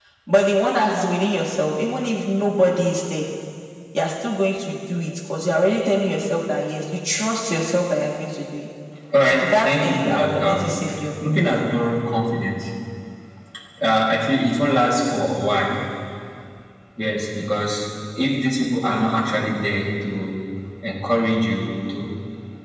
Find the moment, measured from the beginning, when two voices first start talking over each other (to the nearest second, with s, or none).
9 s